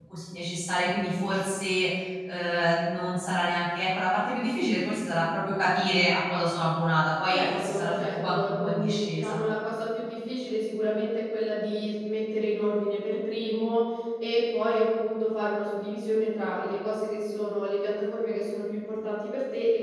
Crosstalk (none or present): present